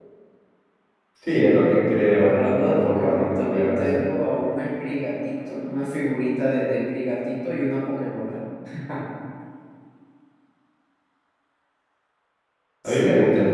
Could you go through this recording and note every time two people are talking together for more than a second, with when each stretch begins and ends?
2.2-4.2

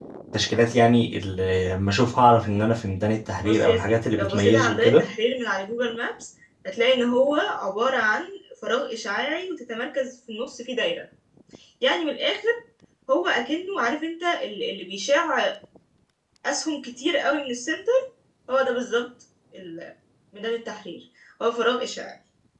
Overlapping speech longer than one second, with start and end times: 3.4-5.0

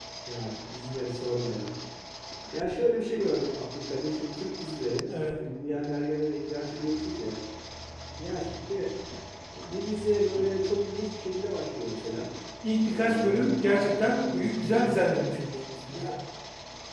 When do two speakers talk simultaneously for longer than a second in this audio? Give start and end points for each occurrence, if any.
12.8-15.2

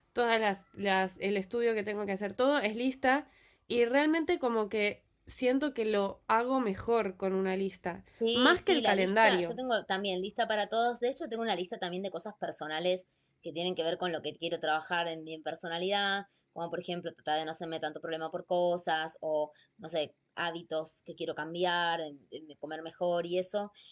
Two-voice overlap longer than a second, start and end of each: 8.3-9.6

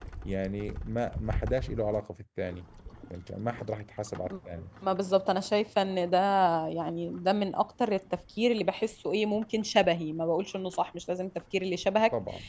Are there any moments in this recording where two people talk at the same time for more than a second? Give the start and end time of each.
none

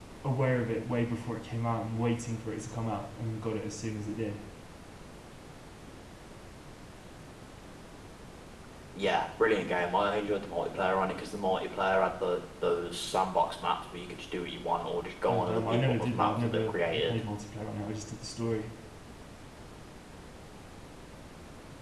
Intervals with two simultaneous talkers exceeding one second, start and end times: 15.3-17.2

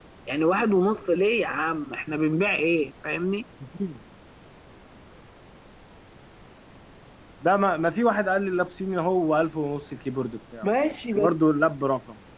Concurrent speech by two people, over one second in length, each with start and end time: none

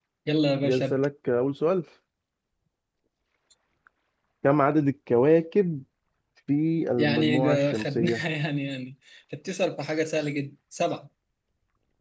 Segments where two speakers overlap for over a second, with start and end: 7.0-8.2

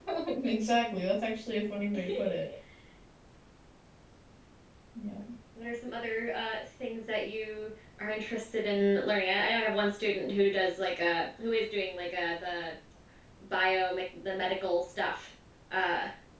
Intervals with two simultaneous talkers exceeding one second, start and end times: none

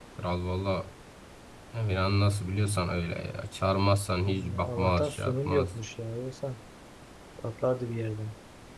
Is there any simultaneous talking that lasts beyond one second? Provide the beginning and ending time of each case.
4.2-5.8

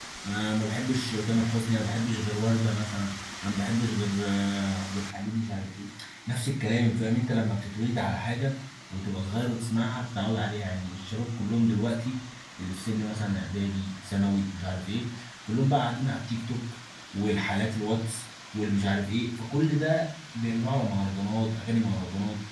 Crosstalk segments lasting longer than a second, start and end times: none

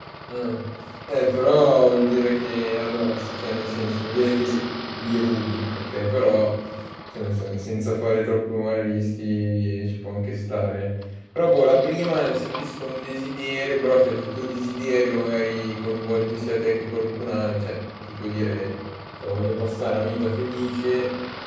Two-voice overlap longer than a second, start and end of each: none

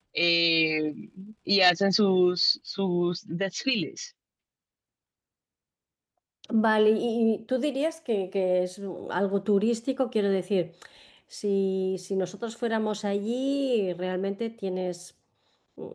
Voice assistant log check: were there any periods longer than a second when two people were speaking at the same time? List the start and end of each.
none

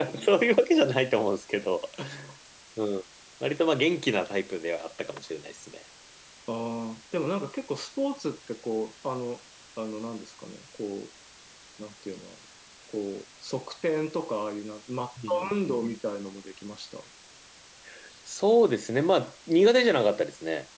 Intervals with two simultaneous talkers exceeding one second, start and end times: none

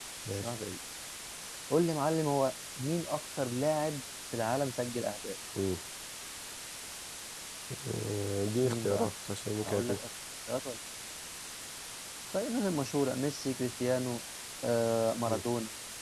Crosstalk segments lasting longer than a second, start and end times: none

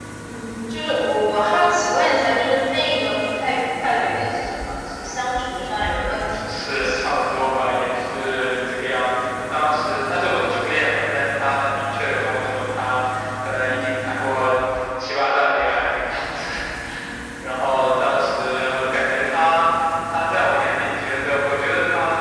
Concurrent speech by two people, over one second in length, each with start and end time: 5.8-7.2

